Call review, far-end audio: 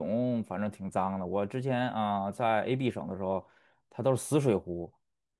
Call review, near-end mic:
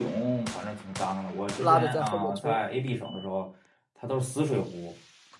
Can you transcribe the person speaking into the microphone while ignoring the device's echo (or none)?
拉着在后面冲，